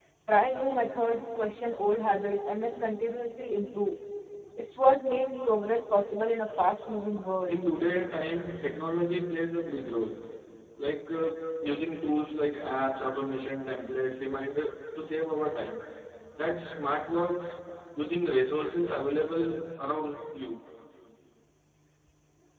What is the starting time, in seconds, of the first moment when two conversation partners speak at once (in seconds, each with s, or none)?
none